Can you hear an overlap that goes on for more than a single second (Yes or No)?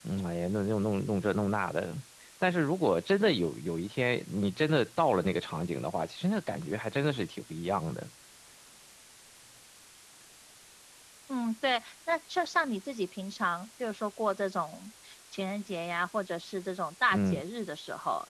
No